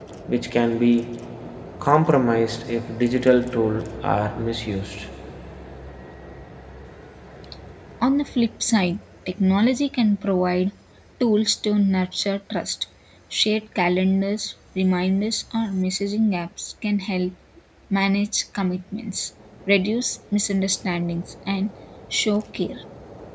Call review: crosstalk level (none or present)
none